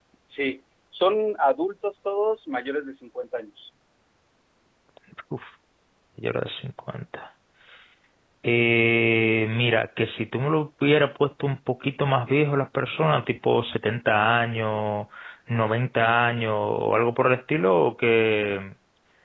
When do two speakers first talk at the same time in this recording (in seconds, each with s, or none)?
none